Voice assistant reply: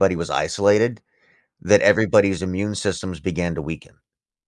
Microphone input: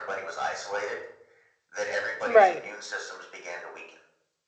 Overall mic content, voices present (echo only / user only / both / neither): both